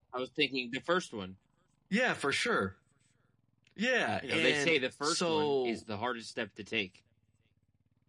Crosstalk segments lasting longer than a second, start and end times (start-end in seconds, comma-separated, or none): 4.2-5.8